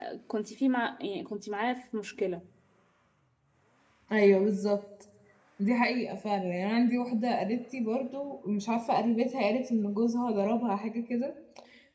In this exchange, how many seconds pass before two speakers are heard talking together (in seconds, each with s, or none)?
none